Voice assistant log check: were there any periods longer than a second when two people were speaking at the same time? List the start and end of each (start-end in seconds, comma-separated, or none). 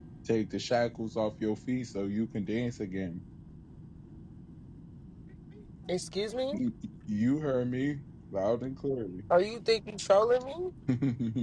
none